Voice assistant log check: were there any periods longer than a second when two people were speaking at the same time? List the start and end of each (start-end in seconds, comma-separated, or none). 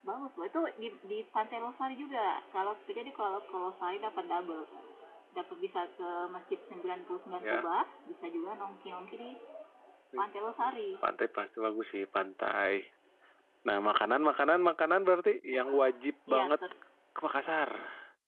none